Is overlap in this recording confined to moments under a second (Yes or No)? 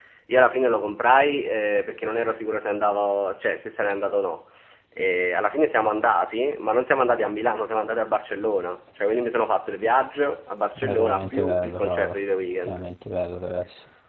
No